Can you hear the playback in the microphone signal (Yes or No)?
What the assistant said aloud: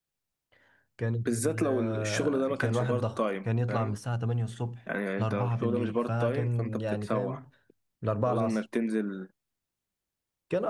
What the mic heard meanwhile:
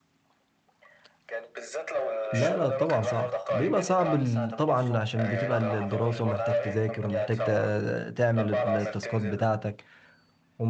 Yes